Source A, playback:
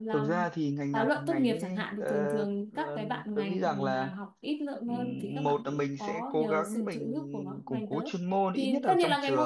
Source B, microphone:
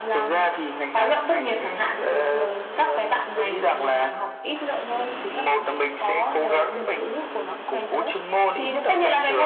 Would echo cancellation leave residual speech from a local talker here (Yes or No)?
No